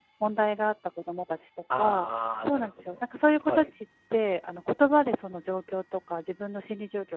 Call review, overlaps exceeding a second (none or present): present